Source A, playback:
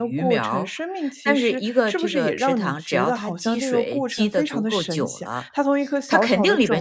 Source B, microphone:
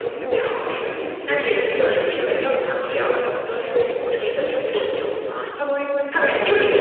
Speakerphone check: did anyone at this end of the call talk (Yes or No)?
No